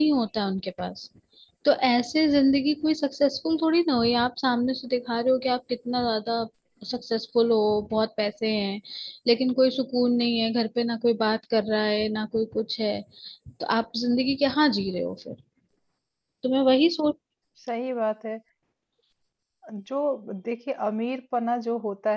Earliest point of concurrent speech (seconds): none

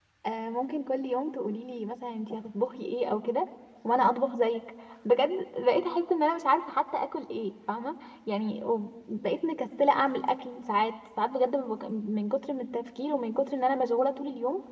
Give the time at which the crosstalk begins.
none

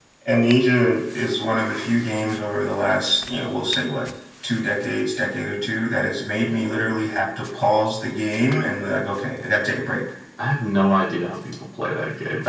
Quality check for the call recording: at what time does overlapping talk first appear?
none

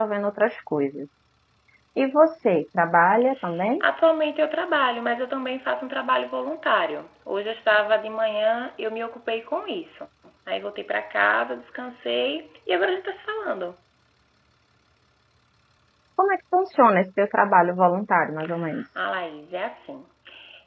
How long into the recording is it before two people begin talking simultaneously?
none

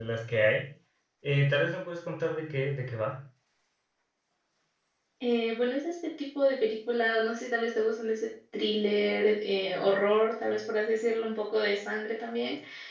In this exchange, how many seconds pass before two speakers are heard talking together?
none

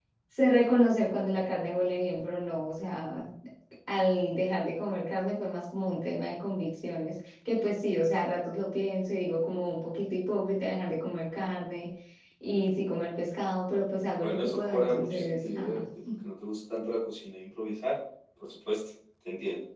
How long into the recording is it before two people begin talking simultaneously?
14 s

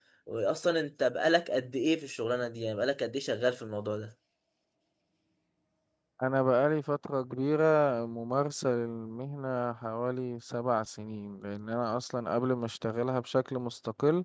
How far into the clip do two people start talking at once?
none

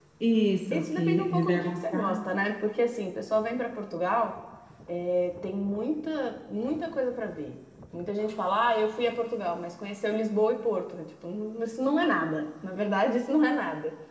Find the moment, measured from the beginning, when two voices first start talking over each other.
1 s

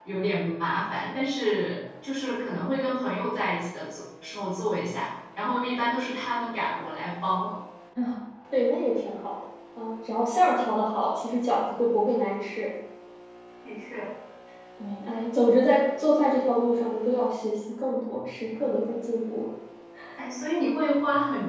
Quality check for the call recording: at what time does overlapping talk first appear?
none

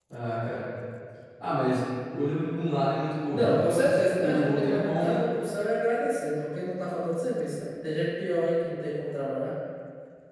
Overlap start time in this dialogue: 3 s

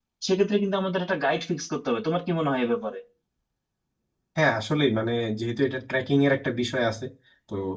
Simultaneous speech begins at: none

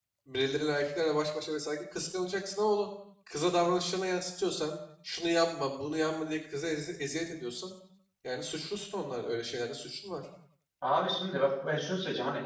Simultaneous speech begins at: none

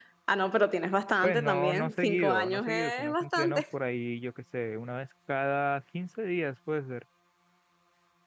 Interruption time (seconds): 1 s

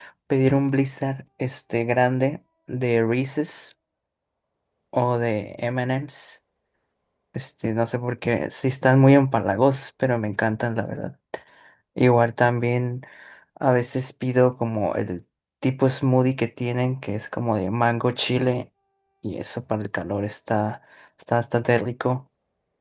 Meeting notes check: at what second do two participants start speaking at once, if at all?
none

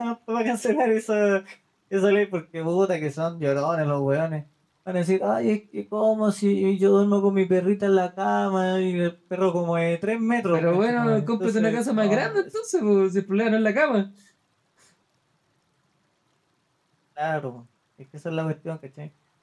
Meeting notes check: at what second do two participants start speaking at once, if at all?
10 s

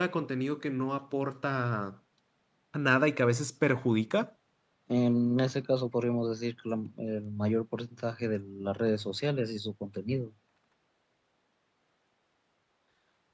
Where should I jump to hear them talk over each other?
none

